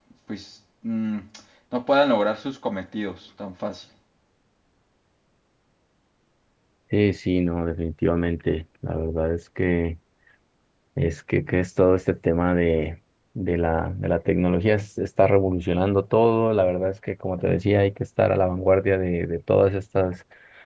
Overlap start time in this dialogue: none

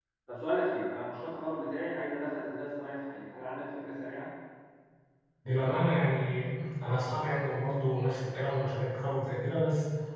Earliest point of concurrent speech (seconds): none

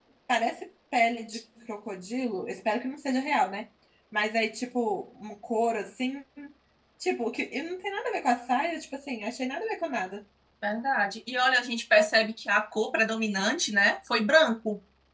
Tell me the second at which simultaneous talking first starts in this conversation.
none

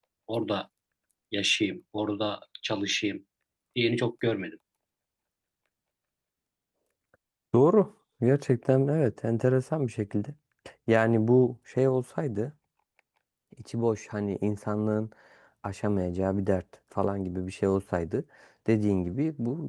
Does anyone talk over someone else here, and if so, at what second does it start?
none

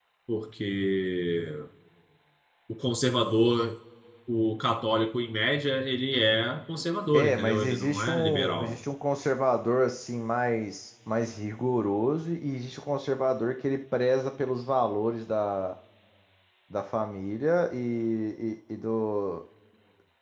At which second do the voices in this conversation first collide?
7.1 s

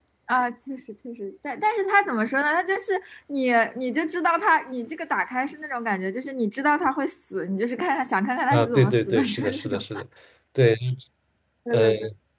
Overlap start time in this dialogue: 8.5 s

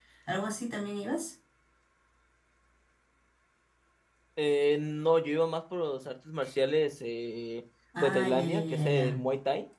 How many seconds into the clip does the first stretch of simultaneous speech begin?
7.9 s

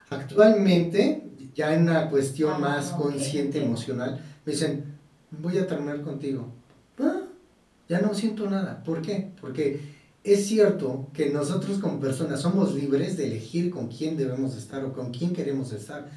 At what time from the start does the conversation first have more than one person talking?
2.4 s

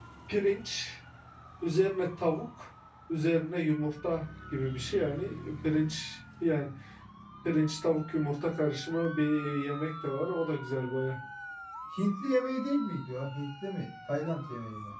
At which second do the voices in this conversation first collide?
none

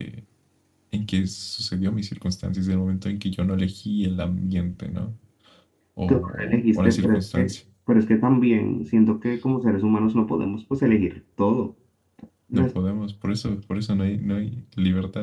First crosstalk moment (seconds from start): 6.1 s

